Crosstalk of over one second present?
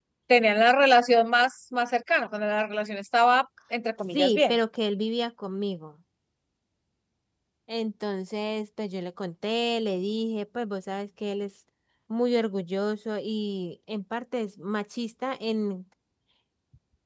No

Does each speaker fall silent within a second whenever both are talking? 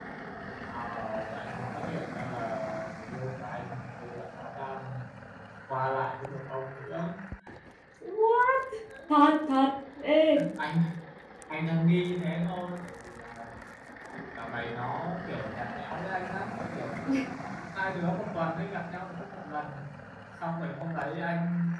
Yes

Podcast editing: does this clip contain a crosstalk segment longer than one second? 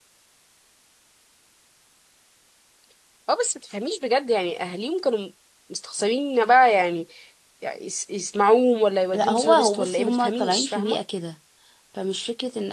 Yes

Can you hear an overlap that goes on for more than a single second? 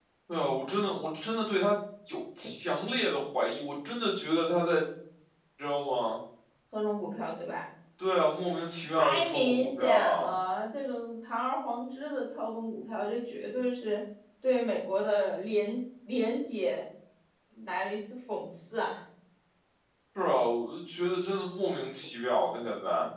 Yes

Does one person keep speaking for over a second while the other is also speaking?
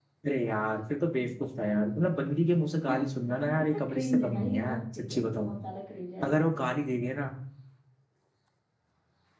Yes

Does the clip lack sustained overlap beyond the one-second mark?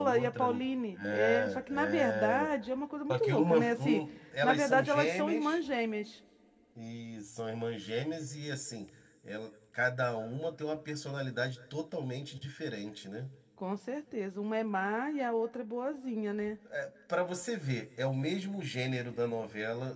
No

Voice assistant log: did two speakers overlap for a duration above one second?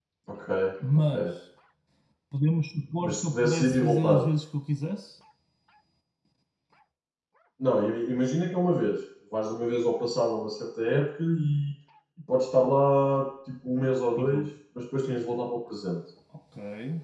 Yes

